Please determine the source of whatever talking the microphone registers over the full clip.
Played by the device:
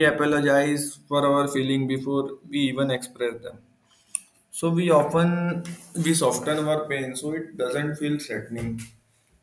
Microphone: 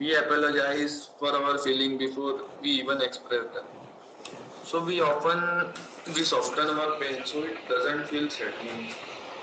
echo only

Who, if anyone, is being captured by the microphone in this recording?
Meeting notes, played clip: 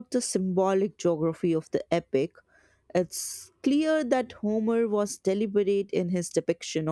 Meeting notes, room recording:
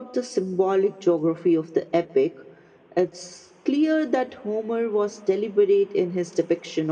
echo only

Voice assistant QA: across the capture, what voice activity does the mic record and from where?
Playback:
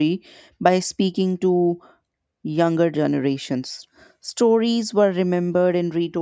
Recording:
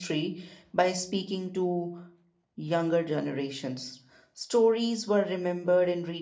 echo only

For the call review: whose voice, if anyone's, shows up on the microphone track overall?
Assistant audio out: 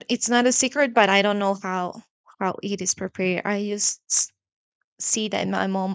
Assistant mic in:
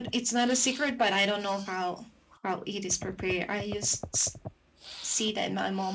echo only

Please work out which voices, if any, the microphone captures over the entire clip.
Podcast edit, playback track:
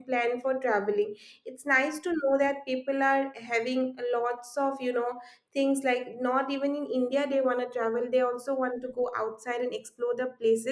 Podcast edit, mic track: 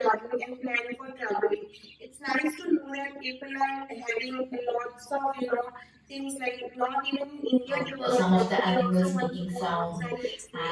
both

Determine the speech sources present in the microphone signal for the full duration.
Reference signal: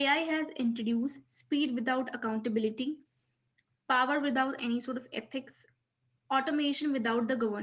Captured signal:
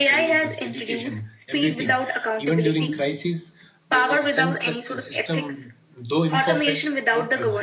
both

